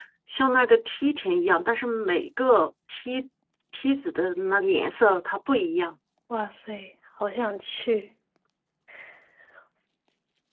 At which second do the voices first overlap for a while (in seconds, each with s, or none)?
none